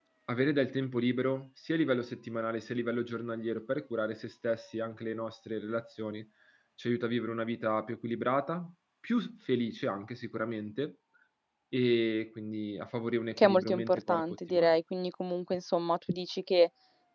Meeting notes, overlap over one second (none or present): present